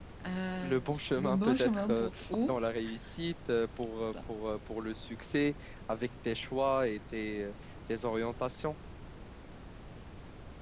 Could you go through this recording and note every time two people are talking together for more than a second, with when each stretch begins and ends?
0.6-2.1

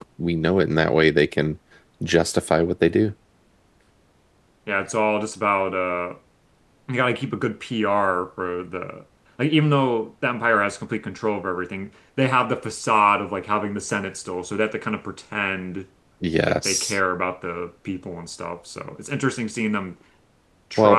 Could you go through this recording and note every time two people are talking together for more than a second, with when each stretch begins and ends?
none

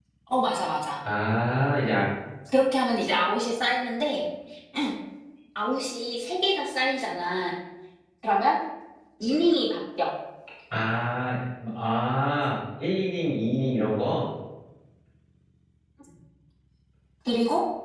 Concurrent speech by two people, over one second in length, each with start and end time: none

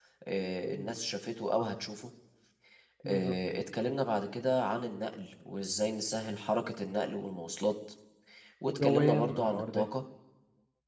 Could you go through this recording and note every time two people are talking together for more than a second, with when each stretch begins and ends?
8.7-9.9

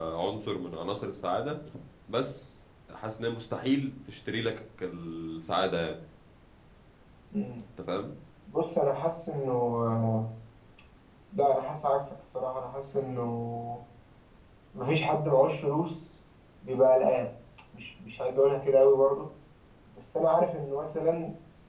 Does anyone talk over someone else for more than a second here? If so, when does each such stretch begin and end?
none

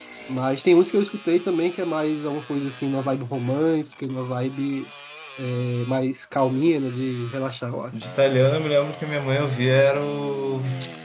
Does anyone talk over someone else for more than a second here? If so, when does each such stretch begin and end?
none

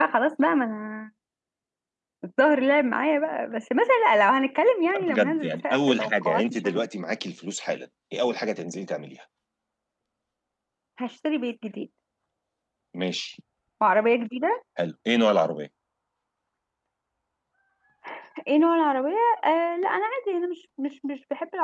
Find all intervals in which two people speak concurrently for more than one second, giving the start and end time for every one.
5.0-6.9

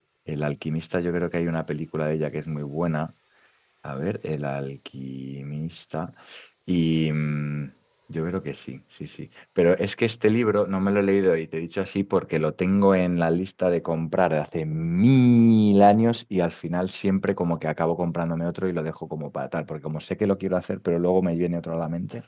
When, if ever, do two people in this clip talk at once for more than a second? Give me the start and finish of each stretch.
none

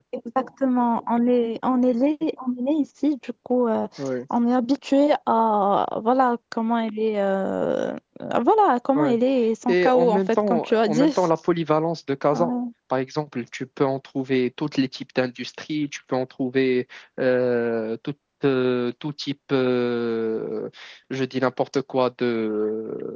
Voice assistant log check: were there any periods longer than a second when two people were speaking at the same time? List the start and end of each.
9.7-11.3

